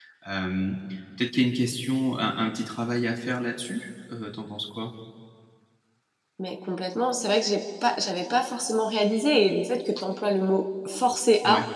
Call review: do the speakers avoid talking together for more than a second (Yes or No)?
Yes